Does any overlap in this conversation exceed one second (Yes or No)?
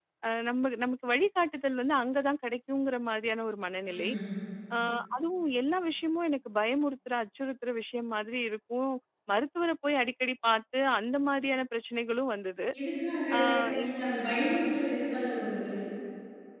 No